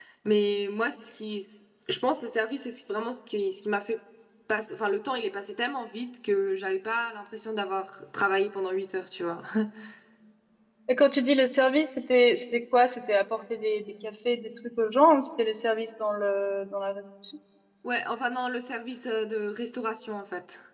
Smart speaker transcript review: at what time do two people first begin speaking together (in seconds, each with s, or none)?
none